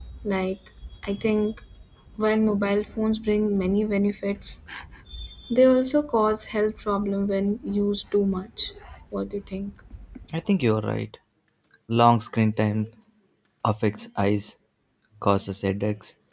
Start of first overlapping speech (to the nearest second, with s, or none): none